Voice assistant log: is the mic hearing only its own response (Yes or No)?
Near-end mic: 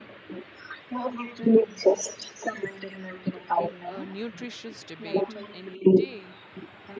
No